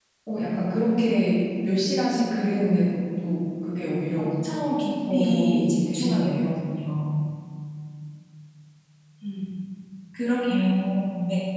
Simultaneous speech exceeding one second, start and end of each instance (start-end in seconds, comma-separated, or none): 5.1-6.5